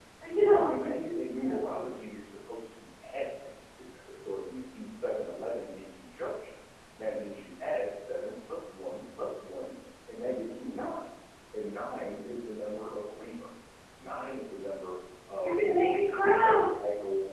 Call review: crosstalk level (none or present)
present